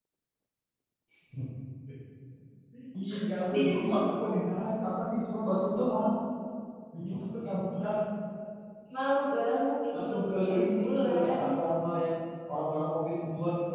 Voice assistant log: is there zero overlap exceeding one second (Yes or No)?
No